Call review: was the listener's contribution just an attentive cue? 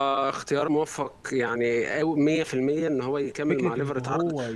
No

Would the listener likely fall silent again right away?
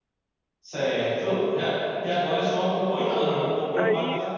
No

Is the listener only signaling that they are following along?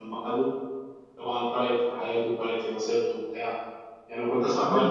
Yes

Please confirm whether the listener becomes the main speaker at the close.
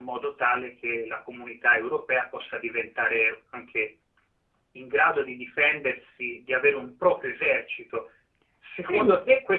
No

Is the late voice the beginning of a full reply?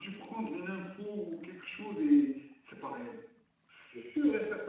No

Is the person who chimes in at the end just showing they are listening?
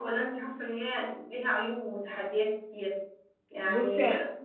Yes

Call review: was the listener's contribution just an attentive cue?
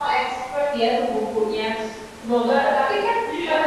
Yes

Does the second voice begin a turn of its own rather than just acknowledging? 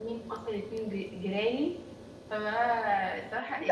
Yes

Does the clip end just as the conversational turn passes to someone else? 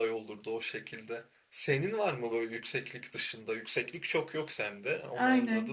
Yes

